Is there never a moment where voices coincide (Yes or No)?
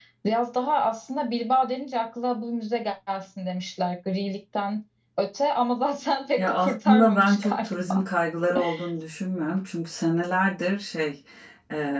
No